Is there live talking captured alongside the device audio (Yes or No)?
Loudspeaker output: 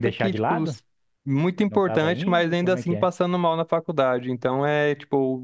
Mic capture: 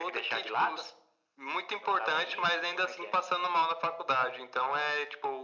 No